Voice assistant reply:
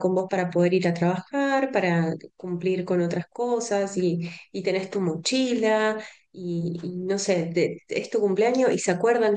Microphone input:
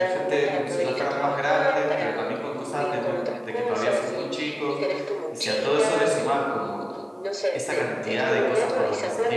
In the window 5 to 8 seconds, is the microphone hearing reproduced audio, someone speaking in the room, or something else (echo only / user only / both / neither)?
both